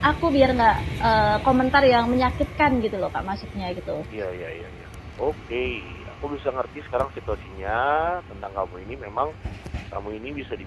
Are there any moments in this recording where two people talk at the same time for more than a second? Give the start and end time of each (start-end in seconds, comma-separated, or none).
none